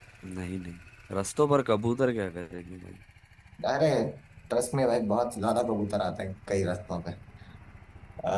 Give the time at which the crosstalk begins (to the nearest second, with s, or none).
none